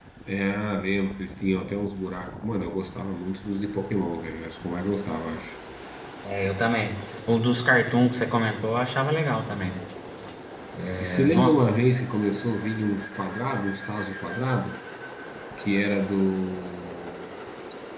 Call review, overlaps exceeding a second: none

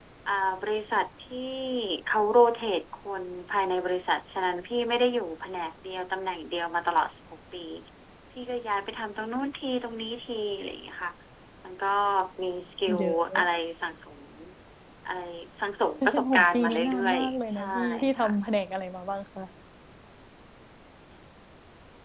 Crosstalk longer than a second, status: present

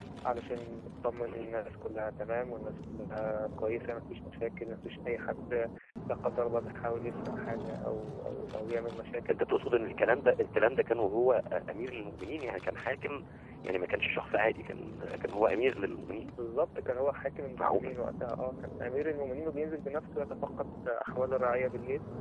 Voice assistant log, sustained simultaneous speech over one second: none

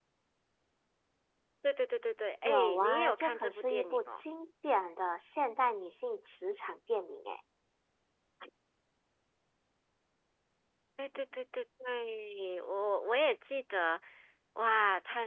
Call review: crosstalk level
present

